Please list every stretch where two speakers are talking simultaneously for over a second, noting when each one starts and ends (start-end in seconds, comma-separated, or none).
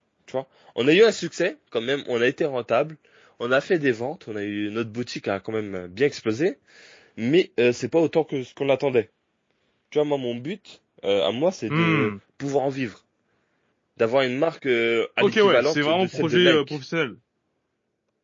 15.2-16.8